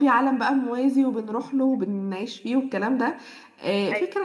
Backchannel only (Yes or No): Yes